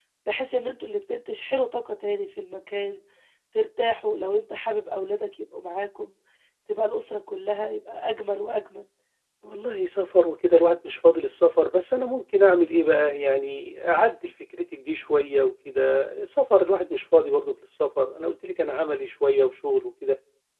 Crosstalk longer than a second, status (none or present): none